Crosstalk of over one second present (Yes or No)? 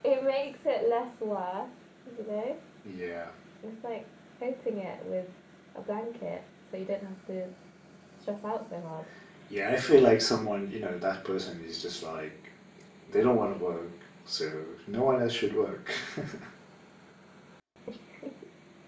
No